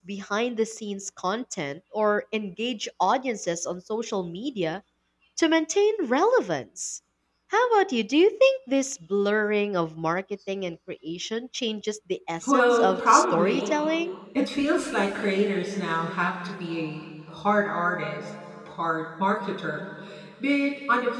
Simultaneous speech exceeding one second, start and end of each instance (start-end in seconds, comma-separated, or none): 12.4-13.7